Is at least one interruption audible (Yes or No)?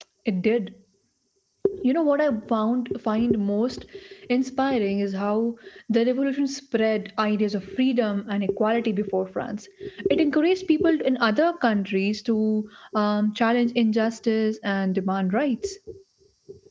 No